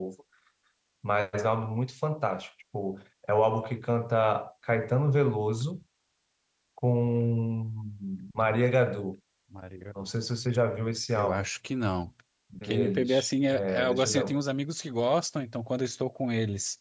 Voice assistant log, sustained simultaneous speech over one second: present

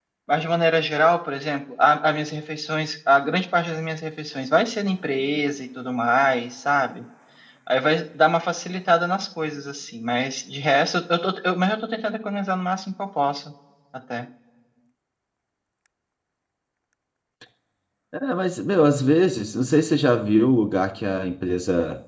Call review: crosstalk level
none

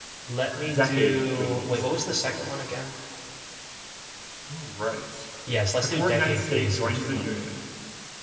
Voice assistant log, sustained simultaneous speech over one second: present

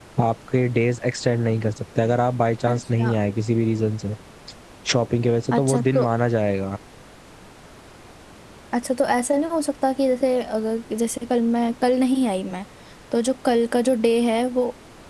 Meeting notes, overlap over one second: none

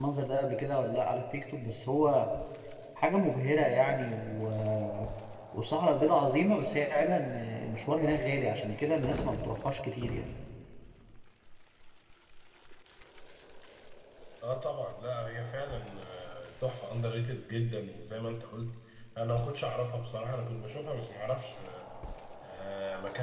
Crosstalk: none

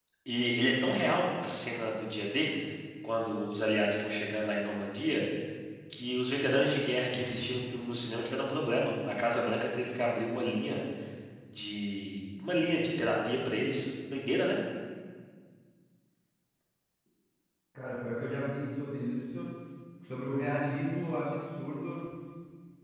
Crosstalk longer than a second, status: none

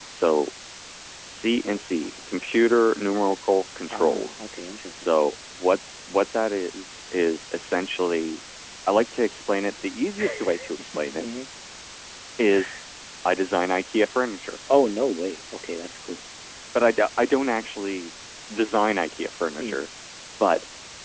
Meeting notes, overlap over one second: none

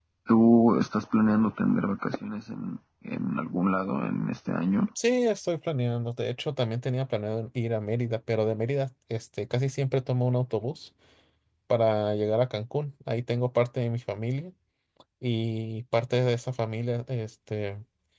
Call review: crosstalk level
none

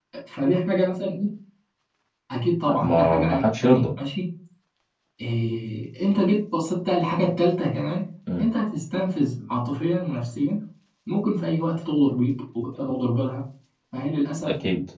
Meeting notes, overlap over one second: present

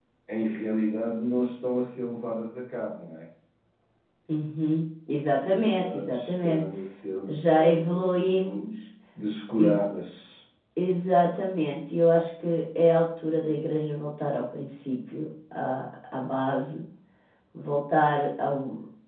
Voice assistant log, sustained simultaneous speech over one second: present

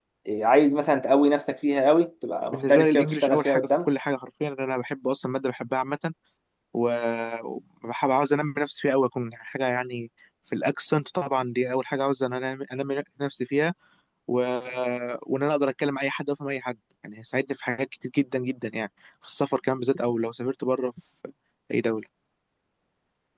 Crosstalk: present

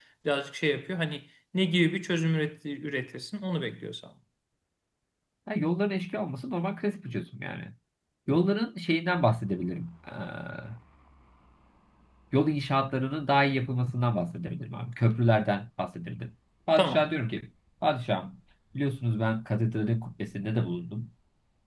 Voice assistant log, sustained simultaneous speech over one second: none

